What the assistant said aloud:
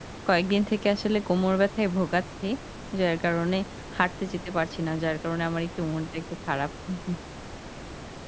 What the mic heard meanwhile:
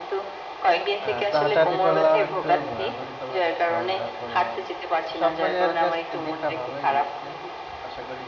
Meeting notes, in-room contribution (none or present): present